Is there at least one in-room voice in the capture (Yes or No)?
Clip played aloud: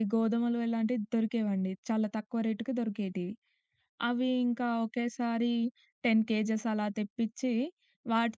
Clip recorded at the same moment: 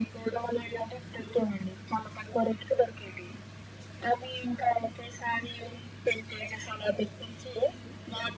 No